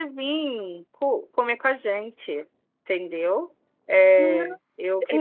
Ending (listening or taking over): taking over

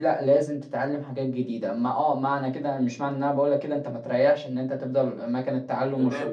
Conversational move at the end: taking over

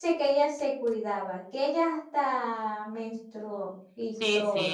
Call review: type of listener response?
taking over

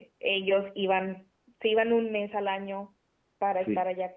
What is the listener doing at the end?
listening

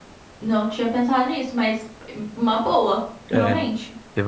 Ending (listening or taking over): taking over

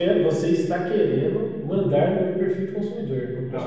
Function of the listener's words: taking over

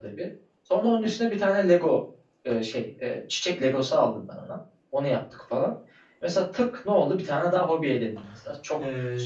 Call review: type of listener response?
listening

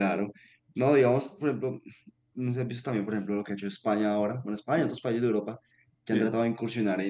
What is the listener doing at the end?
listening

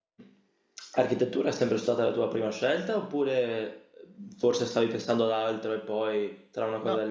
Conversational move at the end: taking over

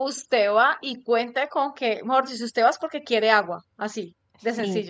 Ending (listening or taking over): taking over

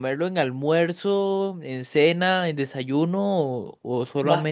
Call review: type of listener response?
taking over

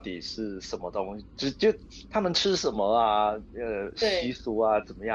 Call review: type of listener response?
listening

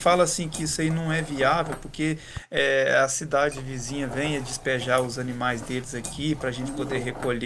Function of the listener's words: listening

